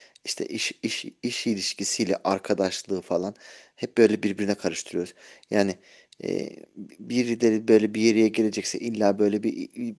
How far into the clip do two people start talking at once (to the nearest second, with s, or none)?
none